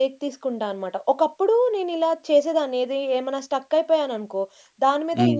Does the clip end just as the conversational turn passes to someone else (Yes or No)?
No